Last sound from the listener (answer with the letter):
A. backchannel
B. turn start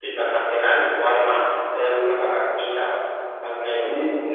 B